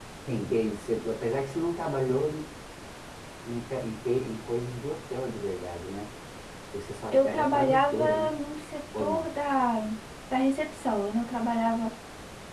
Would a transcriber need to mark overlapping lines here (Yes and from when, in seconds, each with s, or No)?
Yes, from 7.1 s